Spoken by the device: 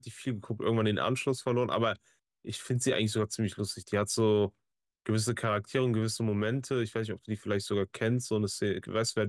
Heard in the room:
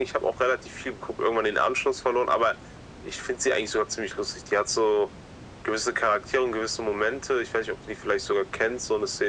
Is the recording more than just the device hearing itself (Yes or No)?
No